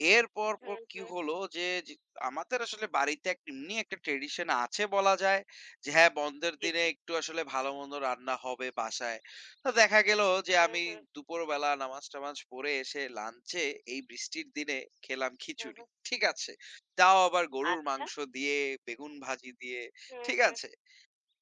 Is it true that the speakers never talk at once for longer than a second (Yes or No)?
Yes